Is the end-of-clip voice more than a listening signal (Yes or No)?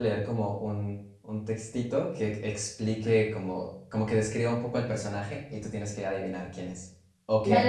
Yes